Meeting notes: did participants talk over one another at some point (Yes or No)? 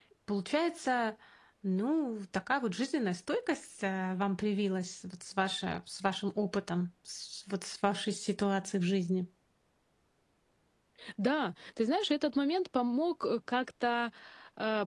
No